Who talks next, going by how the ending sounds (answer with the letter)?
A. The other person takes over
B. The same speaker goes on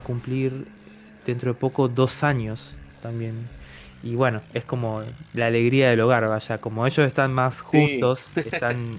B